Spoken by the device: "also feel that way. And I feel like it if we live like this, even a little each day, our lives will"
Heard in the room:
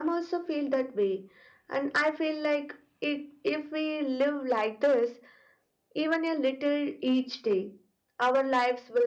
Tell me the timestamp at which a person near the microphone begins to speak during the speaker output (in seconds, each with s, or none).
none